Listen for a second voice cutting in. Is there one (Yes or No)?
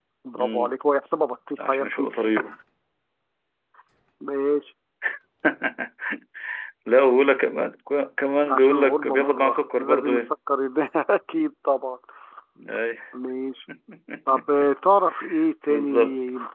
Yes